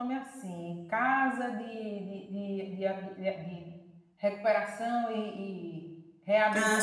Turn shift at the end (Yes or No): No